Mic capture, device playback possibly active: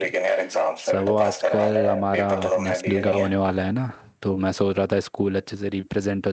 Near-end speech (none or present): present